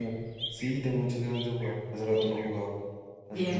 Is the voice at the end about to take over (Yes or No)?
Yes